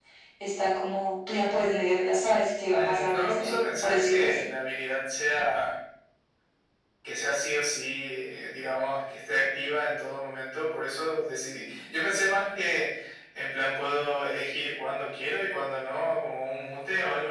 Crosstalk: present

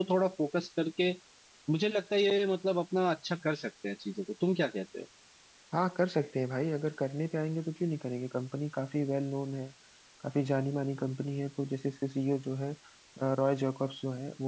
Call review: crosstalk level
none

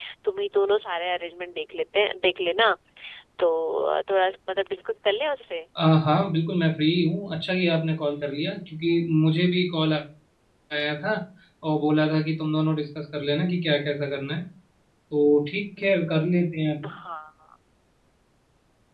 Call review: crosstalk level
none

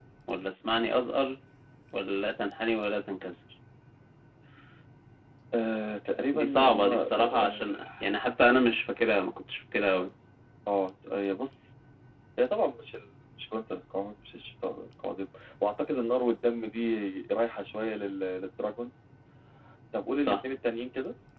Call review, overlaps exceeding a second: present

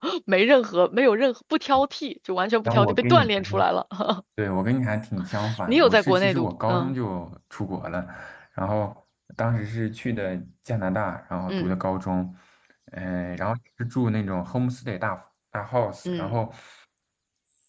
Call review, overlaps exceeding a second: present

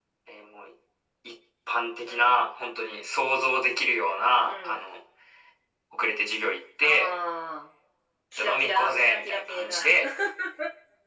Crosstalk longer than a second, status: present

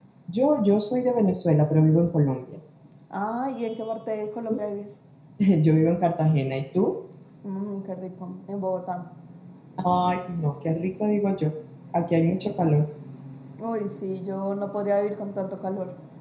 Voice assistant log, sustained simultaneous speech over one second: none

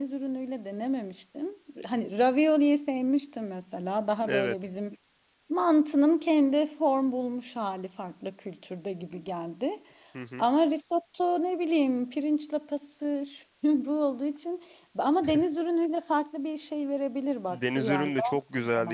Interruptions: present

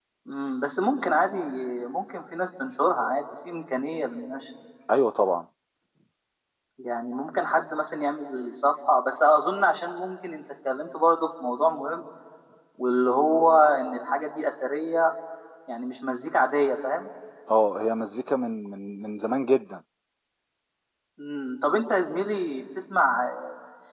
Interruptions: none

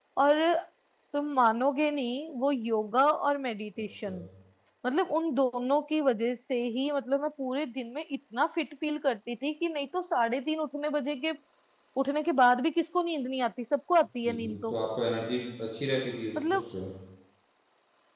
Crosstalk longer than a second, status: none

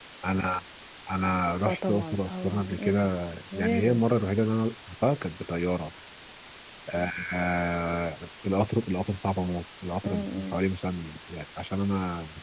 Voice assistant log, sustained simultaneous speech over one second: present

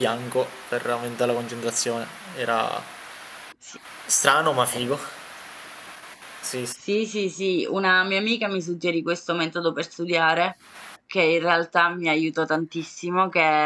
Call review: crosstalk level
none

